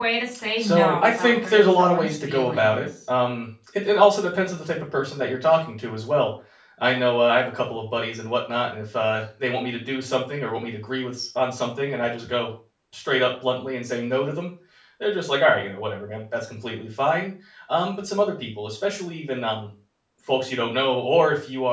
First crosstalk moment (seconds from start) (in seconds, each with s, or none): 0.6 s